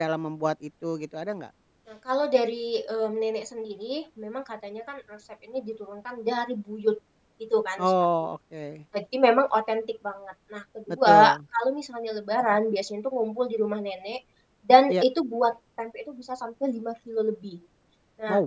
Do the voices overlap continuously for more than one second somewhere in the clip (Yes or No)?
No